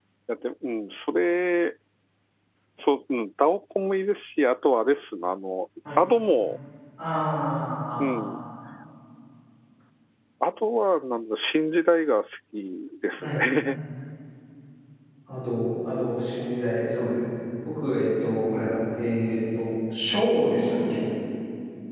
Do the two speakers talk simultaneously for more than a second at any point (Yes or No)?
No